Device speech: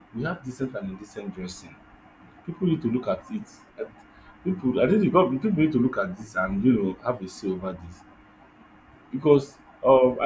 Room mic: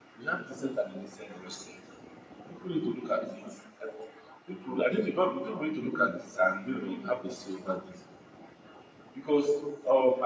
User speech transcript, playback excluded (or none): none